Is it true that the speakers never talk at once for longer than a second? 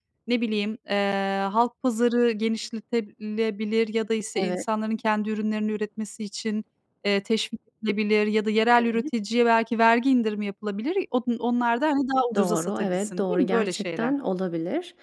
No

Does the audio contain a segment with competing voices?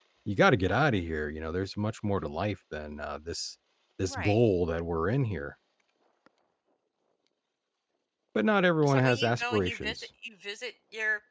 Yes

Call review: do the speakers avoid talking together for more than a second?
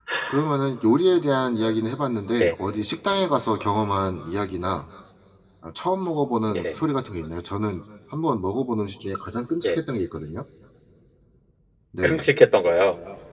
Yes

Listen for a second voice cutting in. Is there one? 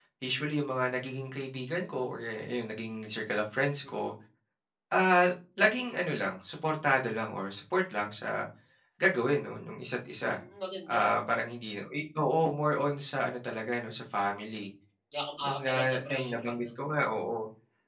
Yes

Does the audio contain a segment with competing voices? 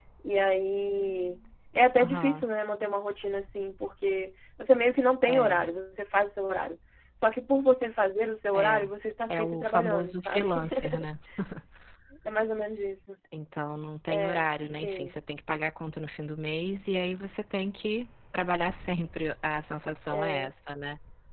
Yes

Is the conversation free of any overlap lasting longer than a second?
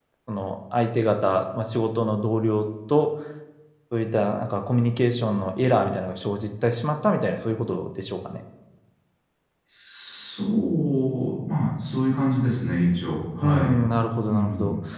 Yes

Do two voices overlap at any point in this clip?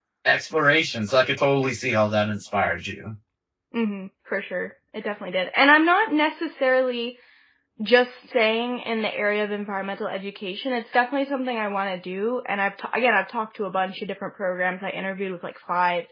No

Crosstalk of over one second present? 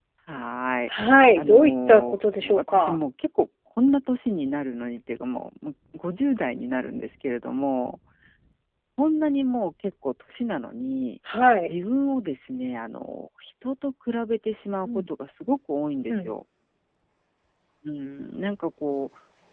Yes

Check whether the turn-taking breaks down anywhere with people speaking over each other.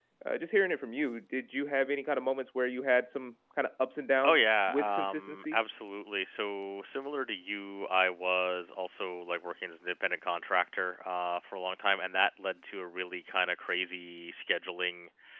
Yes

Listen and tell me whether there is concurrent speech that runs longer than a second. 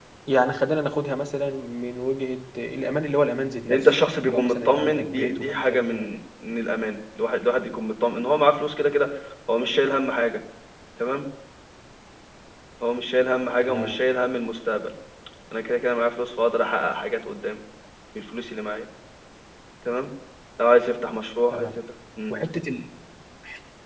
Yes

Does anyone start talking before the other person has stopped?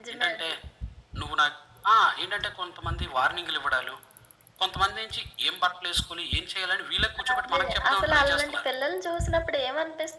Yes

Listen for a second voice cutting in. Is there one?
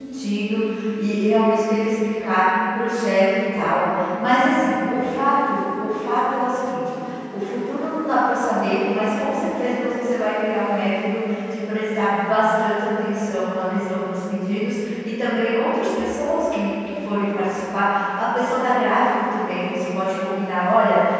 No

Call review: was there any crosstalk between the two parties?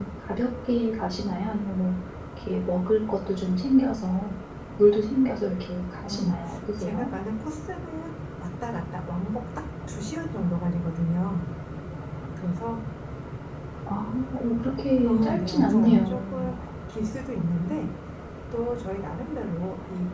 Yes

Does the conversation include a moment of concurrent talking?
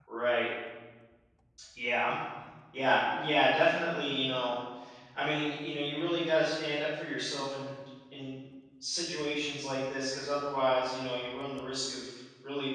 No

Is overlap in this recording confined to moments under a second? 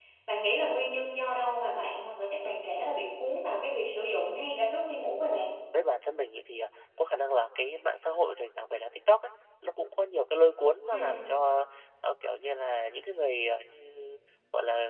Yes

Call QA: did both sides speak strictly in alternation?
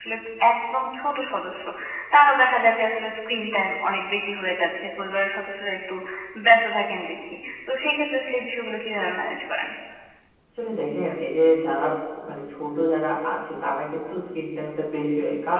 Yes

